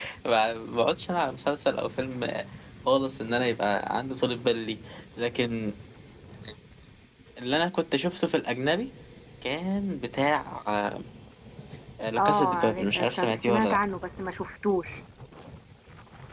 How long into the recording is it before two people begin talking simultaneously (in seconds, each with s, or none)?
12.2 s